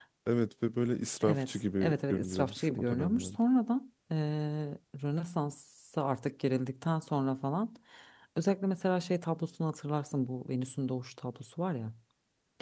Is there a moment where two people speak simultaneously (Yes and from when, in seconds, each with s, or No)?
Yes, from 1.2 s